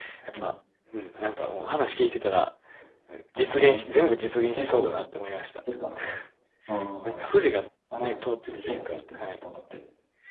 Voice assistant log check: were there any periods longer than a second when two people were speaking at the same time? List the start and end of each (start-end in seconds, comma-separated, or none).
8.0-9.4